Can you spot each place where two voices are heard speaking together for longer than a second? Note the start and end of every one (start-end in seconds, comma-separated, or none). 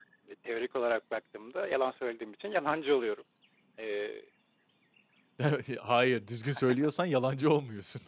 none